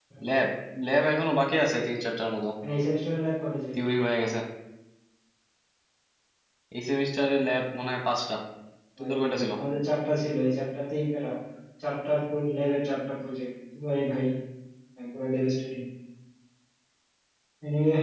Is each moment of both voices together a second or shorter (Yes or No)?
Yes